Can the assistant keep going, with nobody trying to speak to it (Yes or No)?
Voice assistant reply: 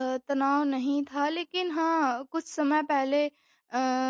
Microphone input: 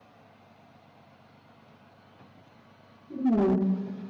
No